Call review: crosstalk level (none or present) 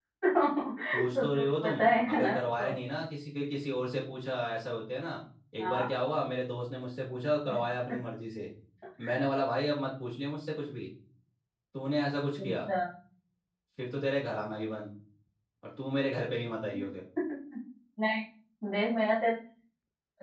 present